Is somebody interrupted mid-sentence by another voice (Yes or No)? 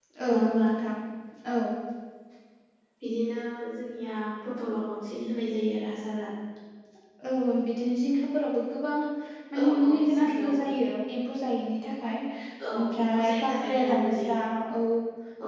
Yes